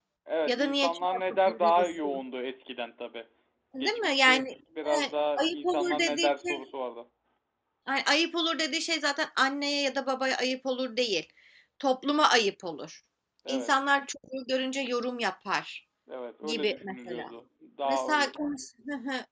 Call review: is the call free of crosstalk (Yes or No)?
No